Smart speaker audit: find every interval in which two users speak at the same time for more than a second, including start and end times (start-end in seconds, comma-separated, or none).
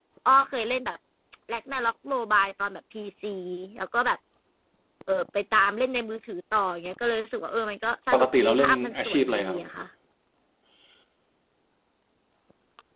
8.1-9.6